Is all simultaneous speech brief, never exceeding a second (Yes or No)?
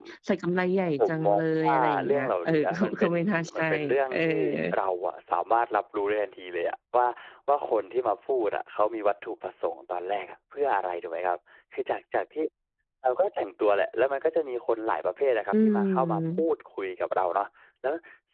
No